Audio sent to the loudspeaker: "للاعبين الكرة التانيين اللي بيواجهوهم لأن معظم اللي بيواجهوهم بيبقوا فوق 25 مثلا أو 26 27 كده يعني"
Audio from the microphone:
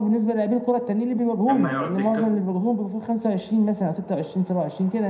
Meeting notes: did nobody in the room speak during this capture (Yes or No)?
No